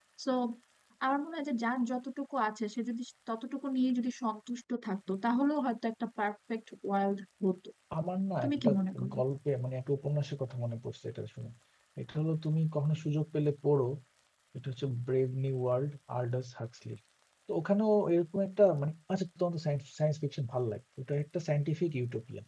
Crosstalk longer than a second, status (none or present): none